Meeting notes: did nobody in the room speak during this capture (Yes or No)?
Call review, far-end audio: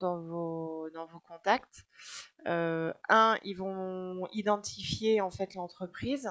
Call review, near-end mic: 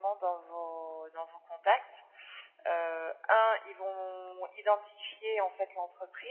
Yes